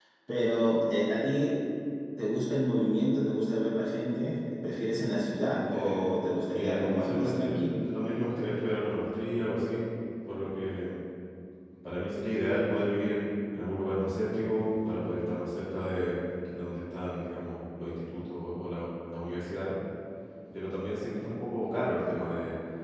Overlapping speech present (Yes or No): Yes